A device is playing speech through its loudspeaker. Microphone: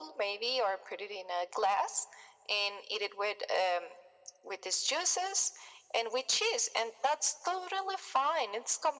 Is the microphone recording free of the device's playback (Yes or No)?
No